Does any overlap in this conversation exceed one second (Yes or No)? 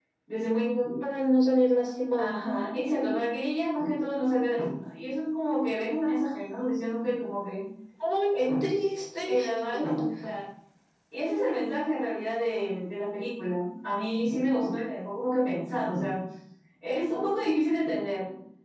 No